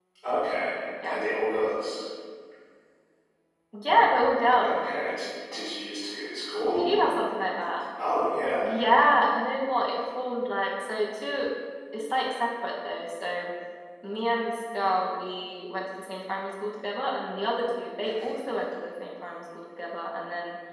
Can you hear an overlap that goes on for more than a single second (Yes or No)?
No